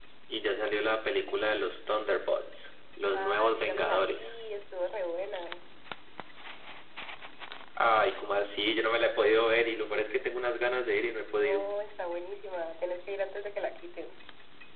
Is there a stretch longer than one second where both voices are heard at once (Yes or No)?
Yes